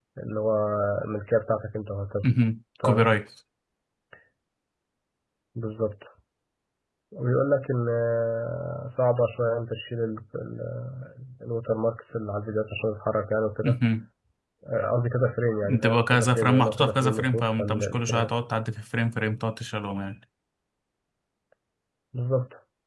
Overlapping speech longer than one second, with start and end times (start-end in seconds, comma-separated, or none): 15.6-18.3